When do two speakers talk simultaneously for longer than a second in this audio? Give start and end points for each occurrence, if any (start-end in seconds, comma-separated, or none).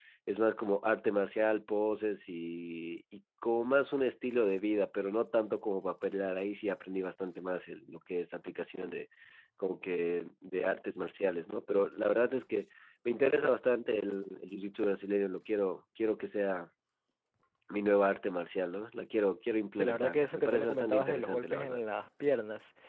19.8-21.8